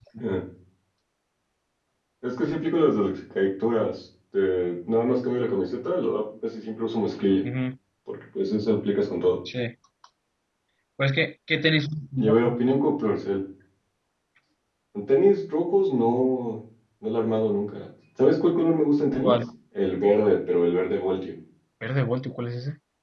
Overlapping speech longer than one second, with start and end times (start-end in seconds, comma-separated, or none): none